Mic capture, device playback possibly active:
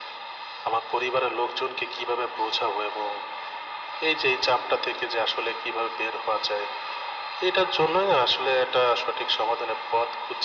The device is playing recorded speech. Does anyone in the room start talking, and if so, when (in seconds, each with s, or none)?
none